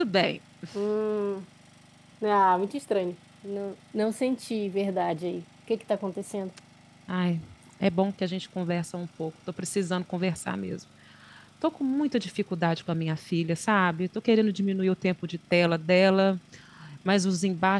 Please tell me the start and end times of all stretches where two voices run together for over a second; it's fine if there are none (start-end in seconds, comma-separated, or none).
none